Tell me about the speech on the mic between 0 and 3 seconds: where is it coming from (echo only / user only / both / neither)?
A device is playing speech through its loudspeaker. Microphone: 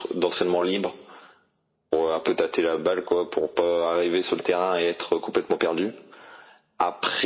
echo only